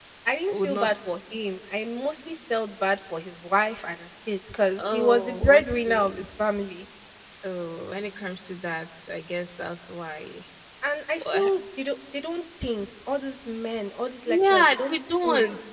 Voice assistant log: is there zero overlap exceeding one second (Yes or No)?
No